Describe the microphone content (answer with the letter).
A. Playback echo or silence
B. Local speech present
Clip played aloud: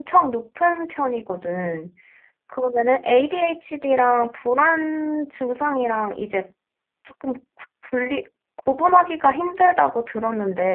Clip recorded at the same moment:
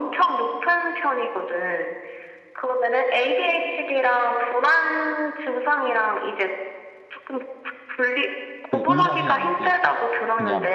B